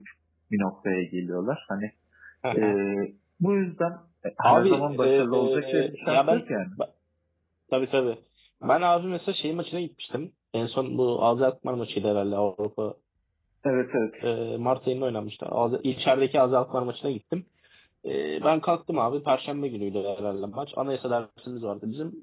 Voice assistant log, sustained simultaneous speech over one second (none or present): present